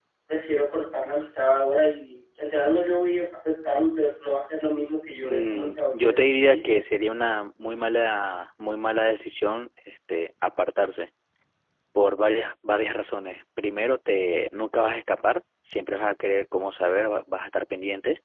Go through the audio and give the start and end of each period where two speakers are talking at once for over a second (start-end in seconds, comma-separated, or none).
5.2-6.6